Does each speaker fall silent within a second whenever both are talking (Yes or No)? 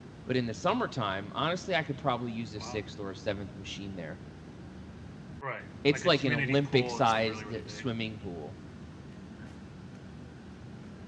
No